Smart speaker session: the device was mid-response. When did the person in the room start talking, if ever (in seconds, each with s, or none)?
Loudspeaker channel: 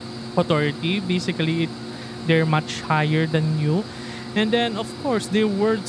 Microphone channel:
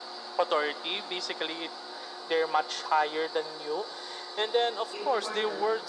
4.9 s